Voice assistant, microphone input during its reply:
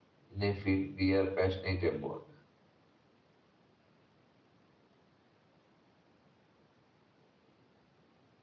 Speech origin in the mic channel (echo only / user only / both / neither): user only